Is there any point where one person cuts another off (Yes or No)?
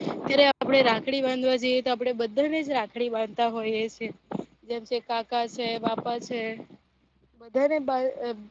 No